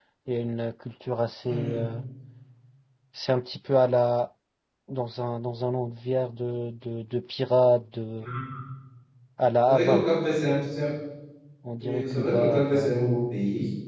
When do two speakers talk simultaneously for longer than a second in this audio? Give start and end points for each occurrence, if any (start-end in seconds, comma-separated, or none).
11.8-13.0